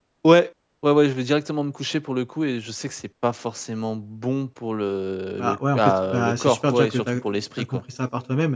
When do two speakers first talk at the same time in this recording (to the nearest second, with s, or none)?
5 s